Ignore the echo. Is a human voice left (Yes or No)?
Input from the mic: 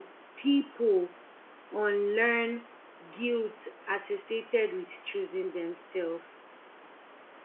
Yes